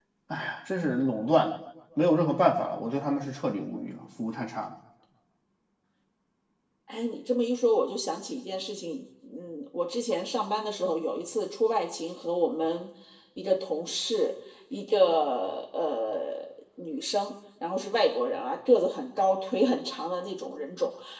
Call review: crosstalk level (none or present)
none